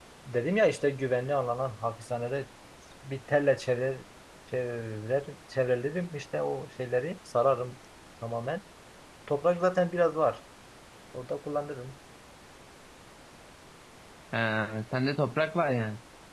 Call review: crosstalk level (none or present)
none